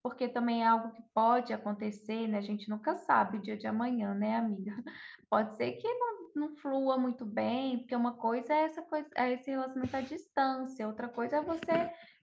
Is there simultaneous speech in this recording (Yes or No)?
No